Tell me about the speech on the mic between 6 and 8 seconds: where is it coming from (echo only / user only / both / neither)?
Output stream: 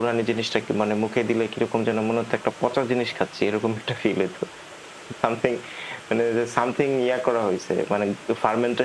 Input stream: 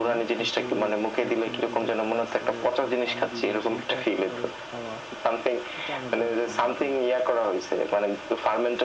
both